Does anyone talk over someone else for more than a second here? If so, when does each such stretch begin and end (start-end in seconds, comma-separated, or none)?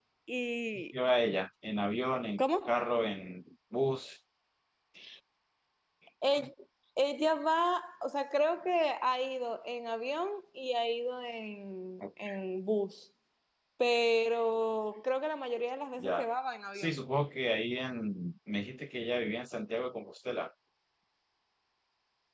none